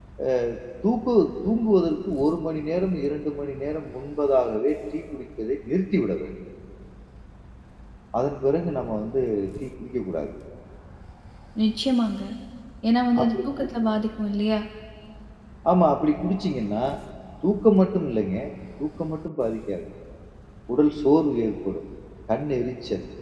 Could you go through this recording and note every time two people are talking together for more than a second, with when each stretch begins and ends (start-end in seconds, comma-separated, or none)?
none